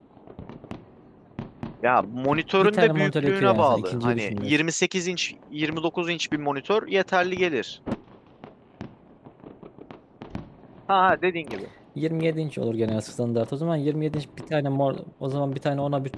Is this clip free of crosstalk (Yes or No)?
No